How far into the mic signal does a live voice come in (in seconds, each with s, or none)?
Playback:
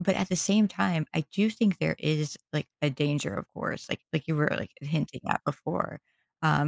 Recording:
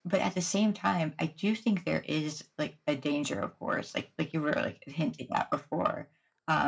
none